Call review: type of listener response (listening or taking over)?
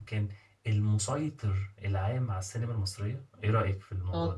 taking over